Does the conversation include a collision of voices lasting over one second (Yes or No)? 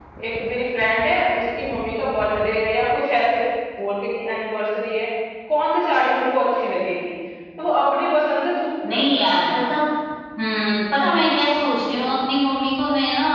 No